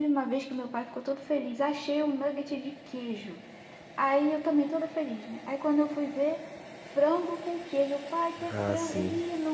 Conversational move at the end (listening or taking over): listening